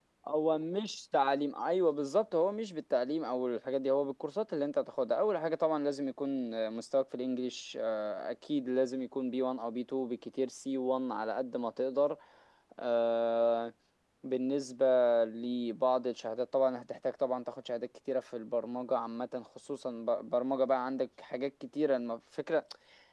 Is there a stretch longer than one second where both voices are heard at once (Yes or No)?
No